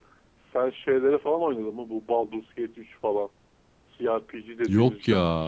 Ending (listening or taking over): listening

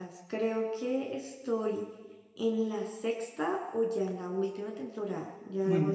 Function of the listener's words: taking over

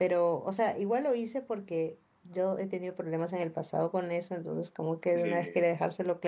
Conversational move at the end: listening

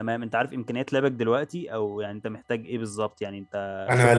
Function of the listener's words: taking over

